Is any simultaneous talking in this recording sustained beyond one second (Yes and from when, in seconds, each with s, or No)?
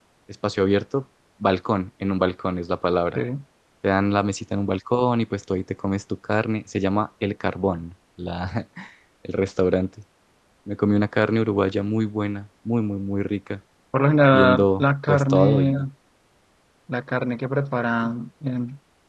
Yes, from 14.3 s